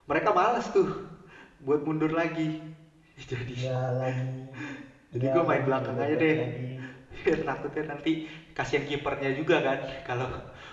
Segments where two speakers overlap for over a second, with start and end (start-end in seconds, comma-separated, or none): 5.2-6.4